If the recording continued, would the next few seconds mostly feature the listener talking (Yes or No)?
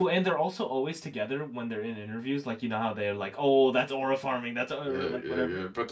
Yes